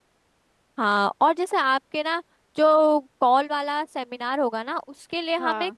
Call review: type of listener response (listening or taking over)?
listening